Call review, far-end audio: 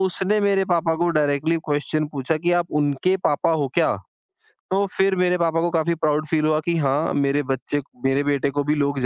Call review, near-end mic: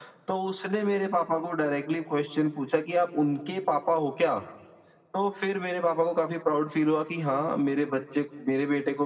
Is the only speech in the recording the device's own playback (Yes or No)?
Yes